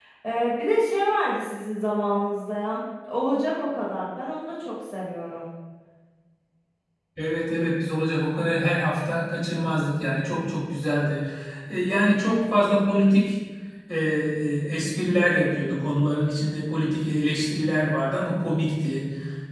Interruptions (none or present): none